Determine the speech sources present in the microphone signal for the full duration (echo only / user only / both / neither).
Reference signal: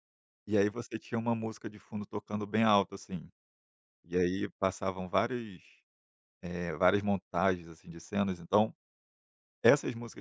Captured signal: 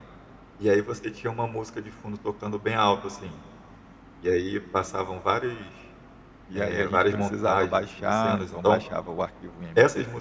both